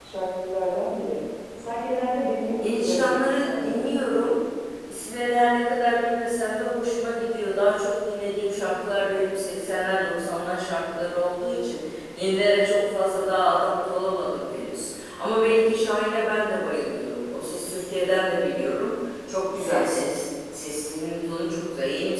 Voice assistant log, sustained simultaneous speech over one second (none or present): present